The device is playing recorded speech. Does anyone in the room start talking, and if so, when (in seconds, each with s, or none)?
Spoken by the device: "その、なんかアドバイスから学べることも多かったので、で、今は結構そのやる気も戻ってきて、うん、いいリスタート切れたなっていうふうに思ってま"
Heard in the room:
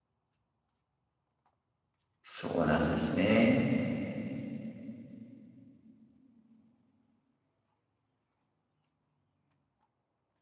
2.2 s